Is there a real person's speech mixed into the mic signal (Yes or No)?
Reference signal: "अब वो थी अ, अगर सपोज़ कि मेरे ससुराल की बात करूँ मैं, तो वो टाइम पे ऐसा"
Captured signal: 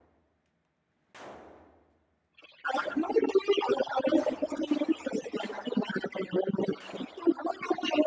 No